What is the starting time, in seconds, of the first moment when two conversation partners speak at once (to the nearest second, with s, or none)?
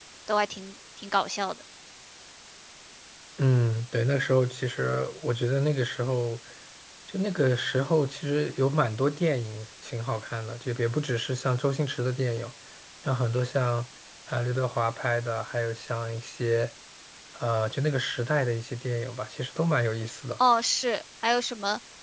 none